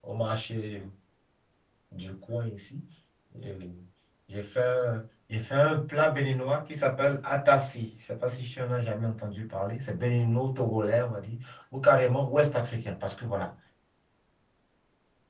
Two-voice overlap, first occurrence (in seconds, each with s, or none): none